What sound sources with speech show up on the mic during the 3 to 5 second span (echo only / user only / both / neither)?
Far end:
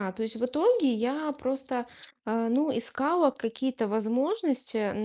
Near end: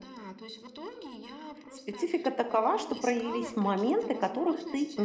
both